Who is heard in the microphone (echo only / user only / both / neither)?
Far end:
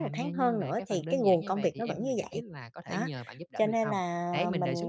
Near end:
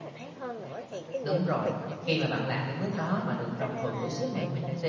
both